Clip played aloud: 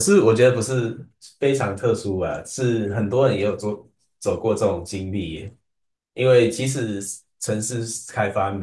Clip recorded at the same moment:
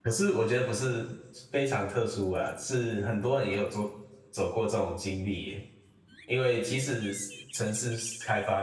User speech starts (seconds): none

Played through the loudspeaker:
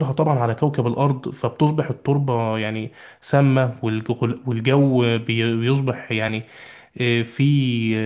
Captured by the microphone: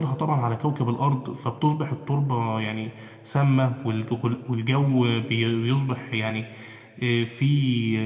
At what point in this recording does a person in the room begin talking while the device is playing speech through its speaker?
none

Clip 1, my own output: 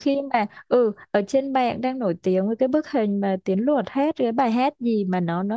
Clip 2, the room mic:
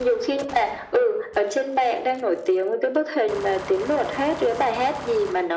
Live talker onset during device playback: none

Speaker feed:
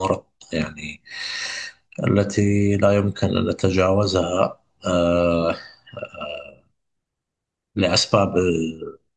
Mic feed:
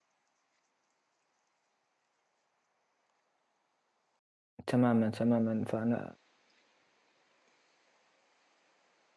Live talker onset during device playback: 4.7 s

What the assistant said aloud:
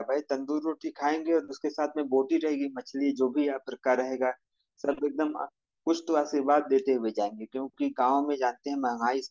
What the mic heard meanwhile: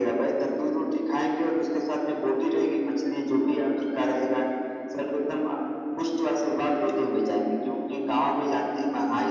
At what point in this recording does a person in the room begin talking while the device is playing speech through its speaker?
none

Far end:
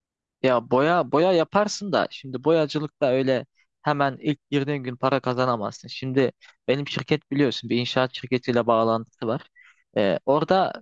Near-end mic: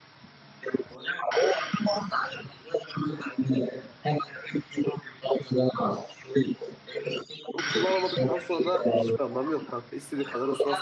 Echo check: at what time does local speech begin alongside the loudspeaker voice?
7.5 s

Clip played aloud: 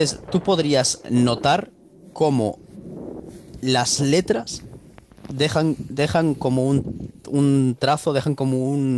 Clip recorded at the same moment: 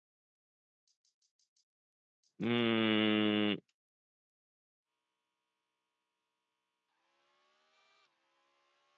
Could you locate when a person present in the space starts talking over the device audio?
2.4 s

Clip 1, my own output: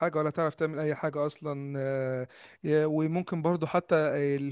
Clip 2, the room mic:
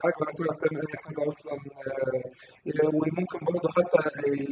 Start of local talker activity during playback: none

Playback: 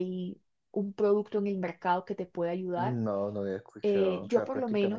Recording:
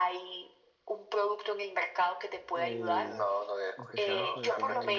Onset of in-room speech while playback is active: 2.5 s

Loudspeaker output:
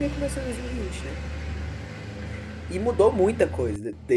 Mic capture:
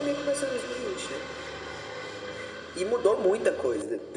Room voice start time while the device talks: none

